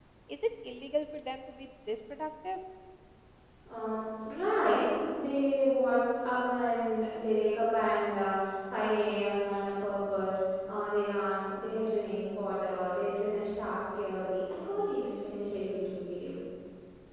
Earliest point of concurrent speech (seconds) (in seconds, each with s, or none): none